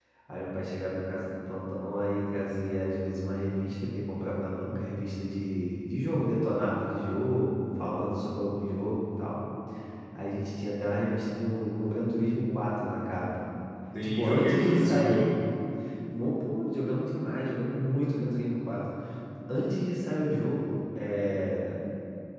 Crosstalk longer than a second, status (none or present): present